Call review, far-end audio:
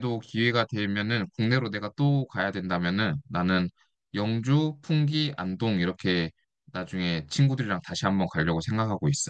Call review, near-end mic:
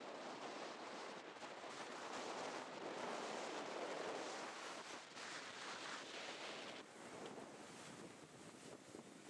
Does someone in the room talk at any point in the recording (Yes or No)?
No